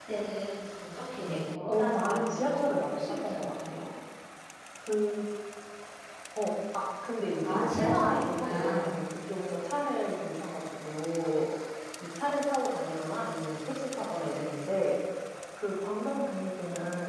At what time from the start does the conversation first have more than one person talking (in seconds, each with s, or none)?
1.7 s